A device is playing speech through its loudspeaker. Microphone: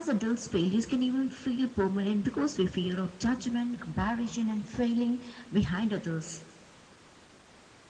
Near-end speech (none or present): none